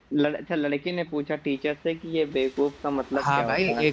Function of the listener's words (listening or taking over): taking over